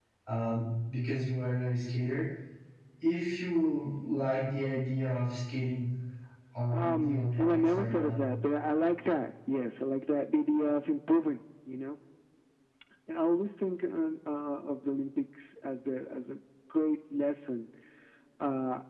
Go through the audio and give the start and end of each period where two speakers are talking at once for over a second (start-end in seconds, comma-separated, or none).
6.7-8.1